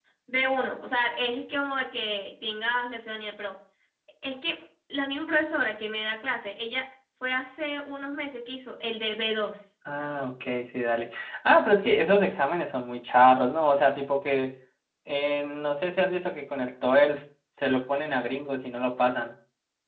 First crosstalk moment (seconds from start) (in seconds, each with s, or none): none